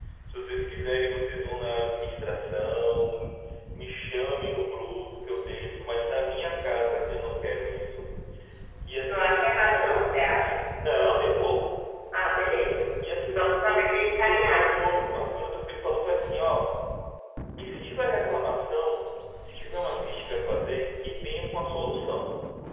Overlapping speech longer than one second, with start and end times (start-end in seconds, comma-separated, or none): 13.3-14.7